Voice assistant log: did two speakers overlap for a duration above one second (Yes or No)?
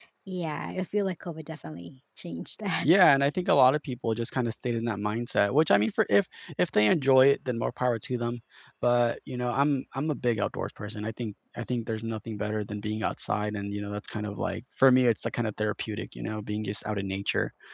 No